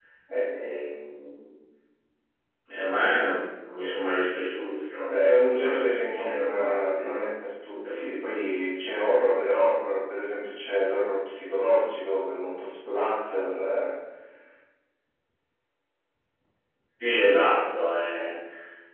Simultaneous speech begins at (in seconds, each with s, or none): 5.0 s